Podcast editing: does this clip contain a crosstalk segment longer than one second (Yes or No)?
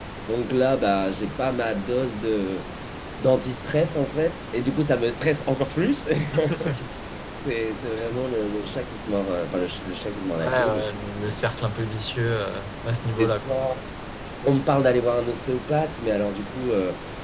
No